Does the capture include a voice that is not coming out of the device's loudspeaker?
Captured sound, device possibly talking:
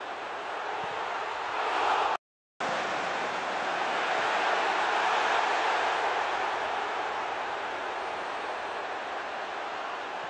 No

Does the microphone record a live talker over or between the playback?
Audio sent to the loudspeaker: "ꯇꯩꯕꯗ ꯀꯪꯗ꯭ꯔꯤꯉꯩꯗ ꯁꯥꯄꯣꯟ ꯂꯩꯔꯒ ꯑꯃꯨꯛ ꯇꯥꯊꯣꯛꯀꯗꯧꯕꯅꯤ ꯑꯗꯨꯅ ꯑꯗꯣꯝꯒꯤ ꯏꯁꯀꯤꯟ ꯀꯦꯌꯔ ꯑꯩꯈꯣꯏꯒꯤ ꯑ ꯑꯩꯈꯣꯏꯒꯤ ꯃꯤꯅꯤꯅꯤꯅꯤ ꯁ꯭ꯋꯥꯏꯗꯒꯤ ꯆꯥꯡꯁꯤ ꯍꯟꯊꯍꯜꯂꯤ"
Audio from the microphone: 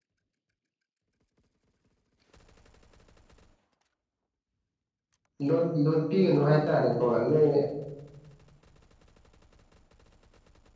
Yes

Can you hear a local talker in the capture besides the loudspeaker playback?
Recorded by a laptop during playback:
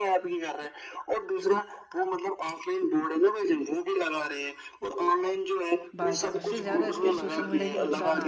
Yes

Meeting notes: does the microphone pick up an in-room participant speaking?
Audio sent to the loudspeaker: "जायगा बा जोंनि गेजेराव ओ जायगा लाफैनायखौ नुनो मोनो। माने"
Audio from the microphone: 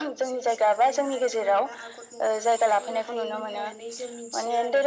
Yes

